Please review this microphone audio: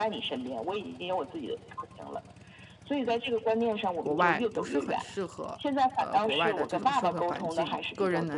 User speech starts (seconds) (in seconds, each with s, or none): 4.0 s